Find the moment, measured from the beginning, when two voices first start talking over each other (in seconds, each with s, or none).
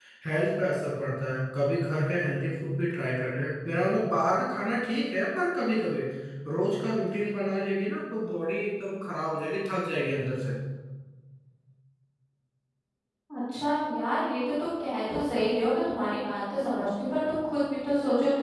none